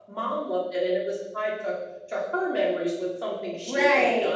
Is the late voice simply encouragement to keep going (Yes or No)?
Yes